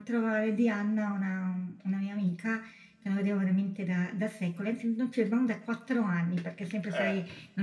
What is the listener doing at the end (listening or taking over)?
listening